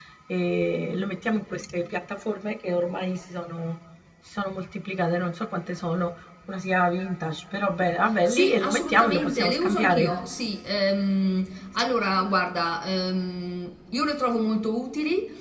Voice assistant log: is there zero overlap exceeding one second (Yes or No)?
No